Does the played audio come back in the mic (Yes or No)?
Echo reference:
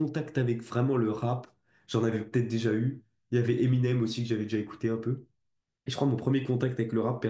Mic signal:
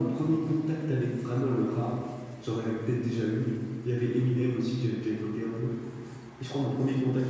Yes